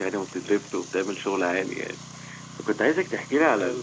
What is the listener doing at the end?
listening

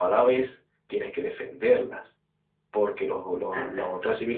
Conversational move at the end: listening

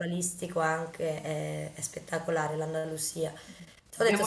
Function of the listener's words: listening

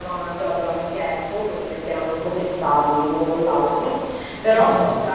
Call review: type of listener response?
listening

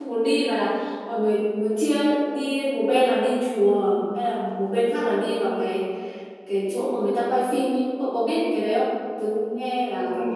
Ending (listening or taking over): taking over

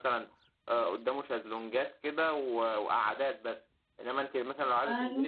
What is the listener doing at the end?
listening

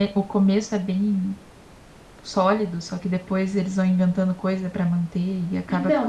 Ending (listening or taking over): taking over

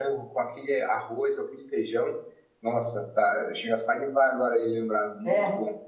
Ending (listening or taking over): taking over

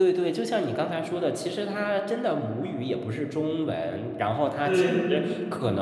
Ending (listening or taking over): listening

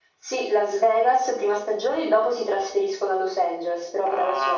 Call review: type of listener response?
taking over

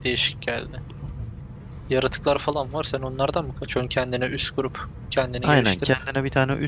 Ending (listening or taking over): taking over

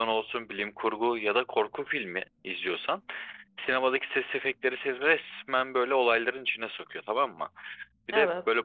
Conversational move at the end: listening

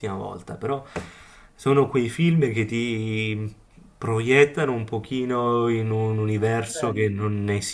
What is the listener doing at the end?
listening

